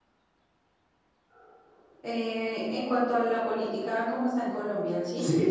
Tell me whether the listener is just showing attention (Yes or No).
No